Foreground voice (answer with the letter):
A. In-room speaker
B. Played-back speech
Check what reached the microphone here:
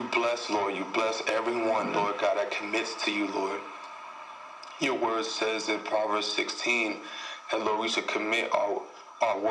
B